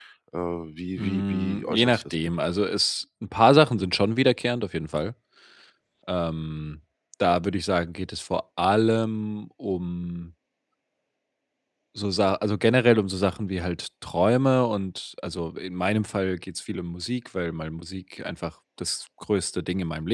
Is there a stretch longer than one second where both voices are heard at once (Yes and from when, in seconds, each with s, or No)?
Yes, from 1.0 s